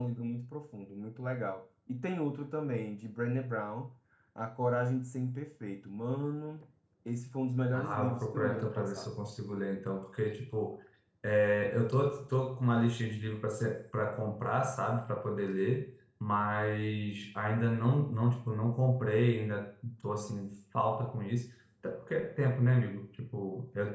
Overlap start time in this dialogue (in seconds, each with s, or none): 7.7 s